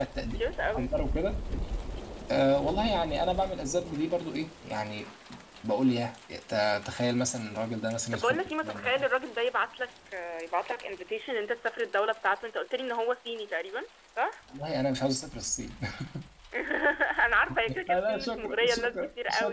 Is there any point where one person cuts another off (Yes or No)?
Yes